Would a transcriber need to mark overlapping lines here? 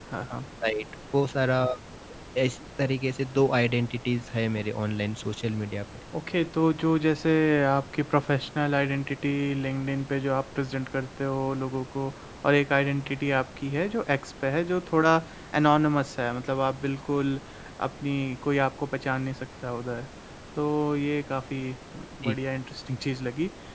No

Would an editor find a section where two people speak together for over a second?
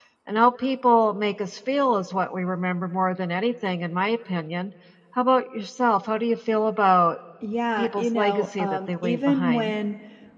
Yes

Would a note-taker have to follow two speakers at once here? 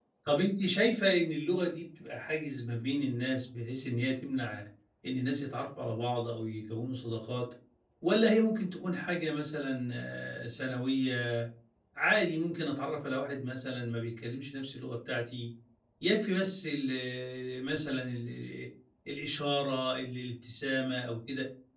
No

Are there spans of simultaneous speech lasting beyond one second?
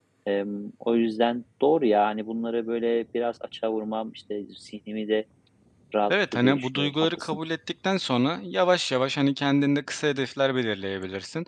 Yes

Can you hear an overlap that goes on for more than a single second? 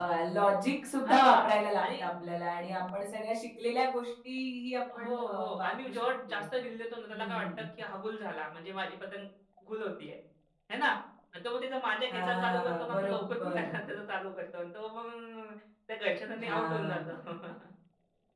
Yes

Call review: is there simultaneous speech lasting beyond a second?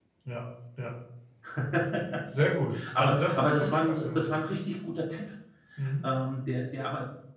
Yes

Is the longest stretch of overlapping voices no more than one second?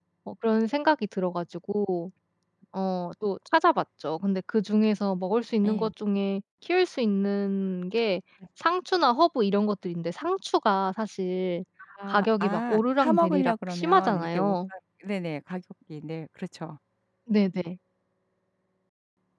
No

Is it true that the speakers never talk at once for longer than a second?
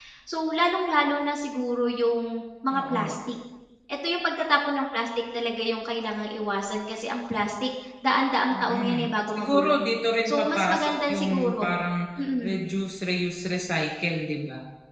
No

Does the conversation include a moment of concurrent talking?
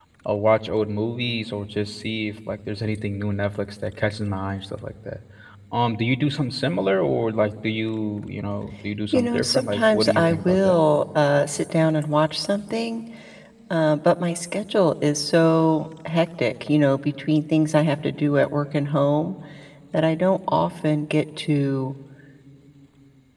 Yes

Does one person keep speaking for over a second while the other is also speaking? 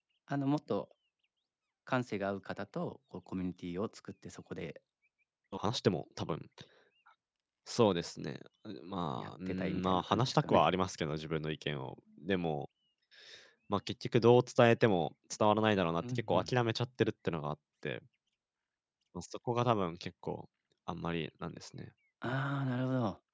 Yes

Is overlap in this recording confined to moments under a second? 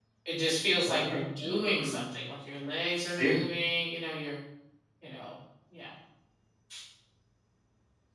No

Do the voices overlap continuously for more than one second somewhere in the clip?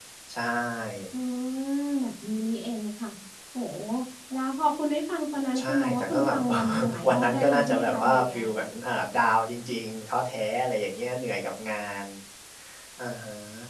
Yes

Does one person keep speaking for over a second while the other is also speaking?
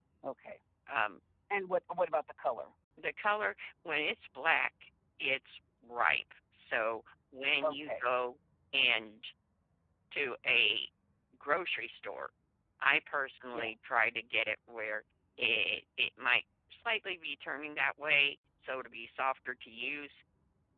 No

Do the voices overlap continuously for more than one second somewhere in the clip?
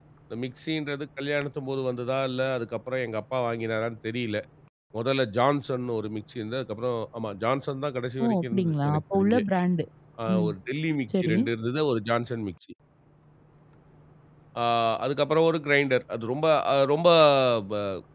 Yes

